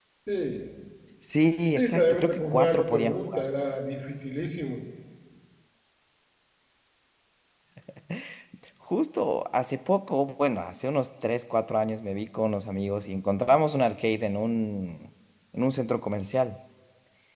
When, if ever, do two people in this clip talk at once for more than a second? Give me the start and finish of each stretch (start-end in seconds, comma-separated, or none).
1.8-3.4